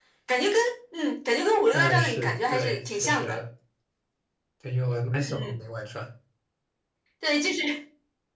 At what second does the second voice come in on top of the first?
1.7 s

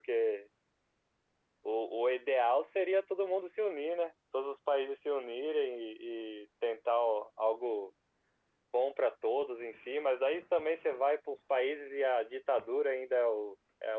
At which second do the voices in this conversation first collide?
none

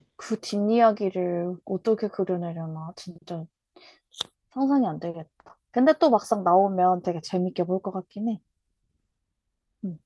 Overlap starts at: none

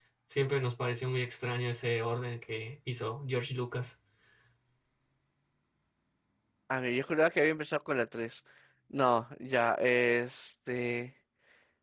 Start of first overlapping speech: none

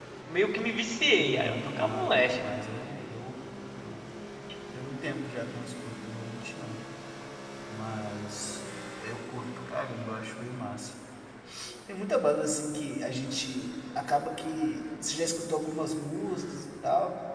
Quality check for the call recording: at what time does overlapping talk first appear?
1.2 s

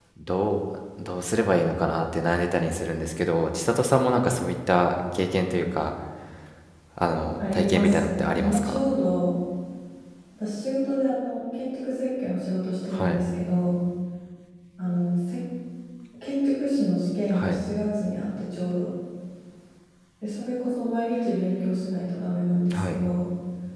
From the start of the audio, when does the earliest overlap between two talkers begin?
7.4 s

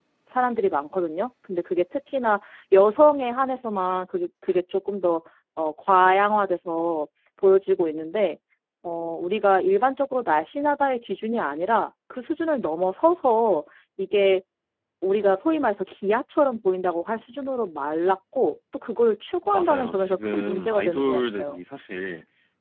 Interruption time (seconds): 19.5 s

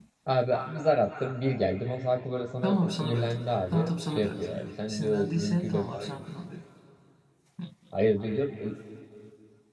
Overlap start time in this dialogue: 2.6 s

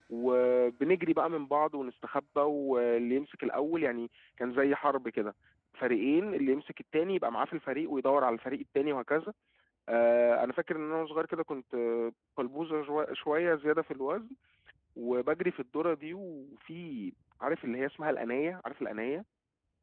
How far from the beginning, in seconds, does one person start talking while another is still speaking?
none

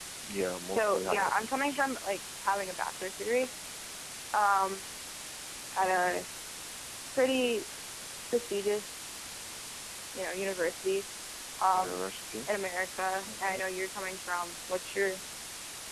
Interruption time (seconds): 0.7 s

